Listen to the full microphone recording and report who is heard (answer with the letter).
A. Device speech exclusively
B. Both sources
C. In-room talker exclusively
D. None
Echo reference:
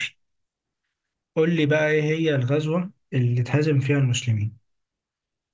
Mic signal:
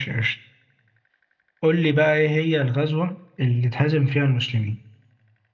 A